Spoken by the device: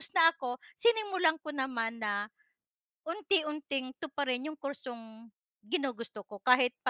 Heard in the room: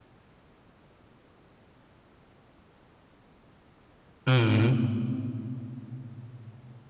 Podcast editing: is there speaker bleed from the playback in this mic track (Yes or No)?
No